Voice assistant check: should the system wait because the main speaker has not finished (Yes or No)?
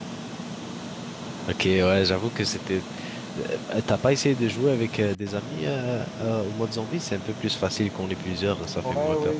No